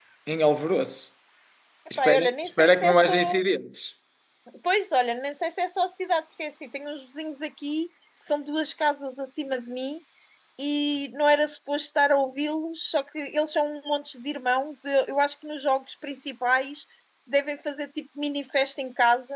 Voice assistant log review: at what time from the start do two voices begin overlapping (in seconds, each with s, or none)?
2.0 s